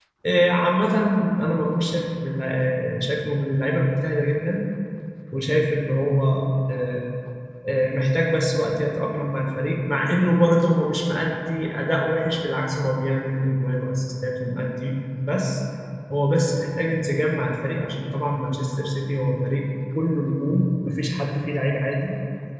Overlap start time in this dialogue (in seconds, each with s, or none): none